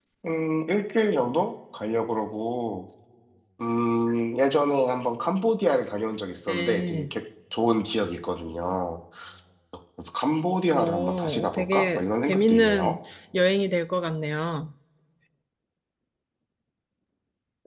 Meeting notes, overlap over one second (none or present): present